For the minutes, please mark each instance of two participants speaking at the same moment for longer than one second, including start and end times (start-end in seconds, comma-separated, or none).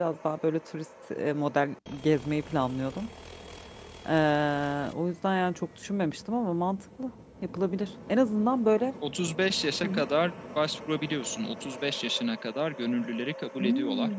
none